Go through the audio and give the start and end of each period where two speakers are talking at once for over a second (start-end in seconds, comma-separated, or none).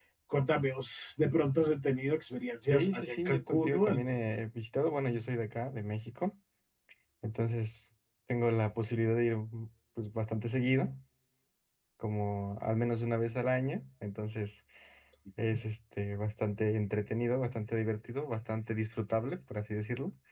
2.7-4.0